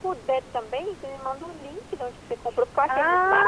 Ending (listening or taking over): taking over